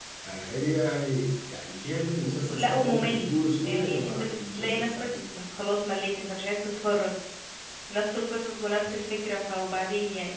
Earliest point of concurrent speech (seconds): 2.5 s

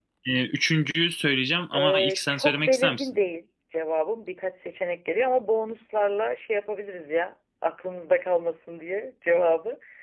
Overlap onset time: 1.7 s

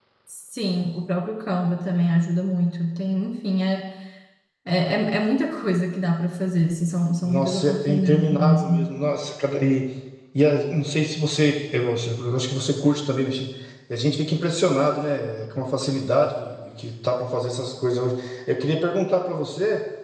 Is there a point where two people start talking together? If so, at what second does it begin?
7.2 s

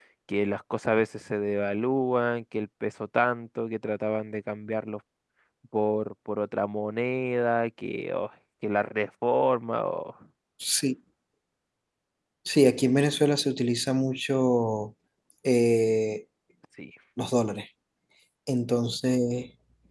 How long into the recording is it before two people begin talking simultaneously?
none

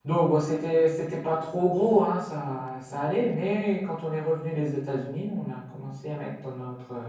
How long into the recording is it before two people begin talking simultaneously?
none

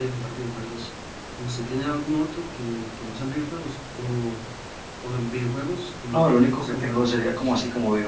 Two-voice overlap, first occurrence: 6.1 s

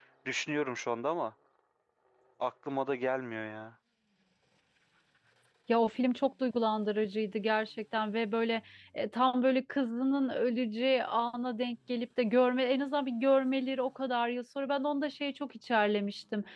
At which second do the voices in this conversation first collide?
none

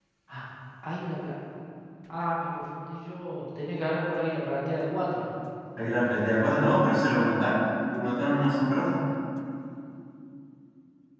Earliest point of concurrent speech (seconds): none

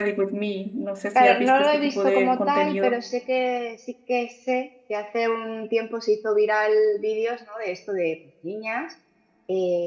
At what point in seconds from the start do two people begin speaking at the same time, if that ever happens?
1.1 s

